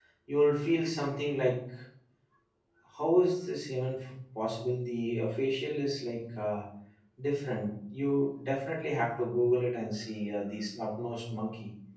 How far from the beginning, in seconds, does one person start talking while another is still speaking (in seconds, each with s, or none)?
none